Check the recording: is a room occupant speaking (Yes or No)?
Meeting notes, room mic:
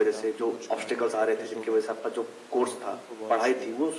Yes